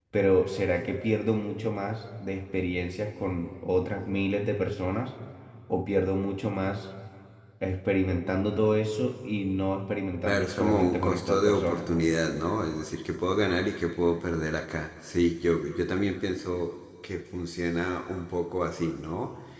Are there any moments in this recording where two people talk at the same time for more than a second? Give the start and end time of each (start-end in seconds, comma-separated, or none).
10.2-11.8